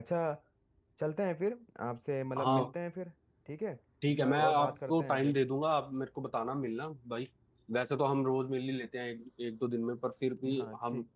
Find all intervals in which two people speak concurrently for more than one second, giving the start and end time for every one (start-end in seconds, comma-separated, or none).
4.1-5.4